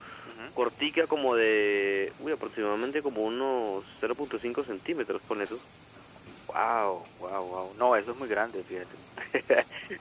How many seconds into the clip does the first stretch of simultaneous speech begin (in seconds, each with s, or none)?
none